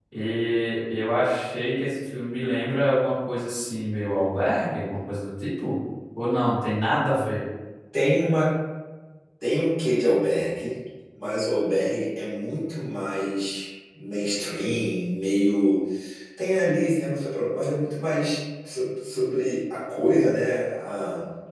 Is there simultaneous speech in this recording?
No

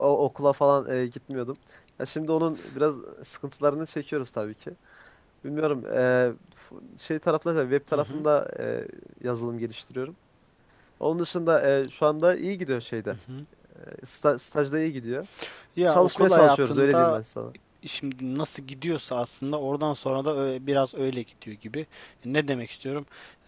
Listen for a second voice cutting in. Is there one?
Yes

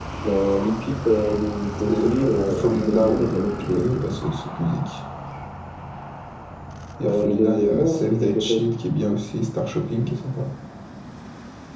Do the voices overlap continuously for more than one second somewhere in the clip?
Yes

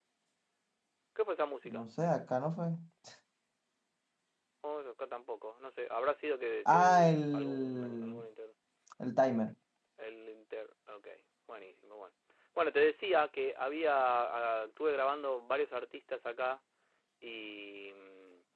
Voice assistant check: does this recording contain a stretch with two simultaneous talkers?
Yes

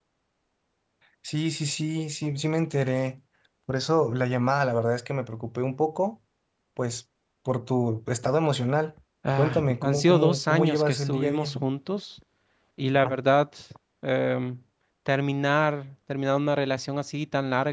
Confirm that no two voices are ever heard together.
No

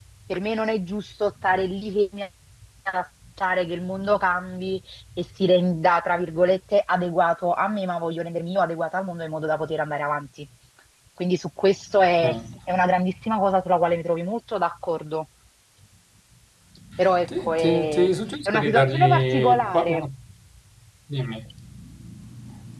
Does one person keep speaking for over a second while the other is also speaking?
Yes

